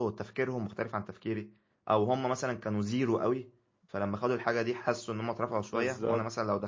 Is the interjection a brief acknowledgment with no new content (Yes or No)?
Yes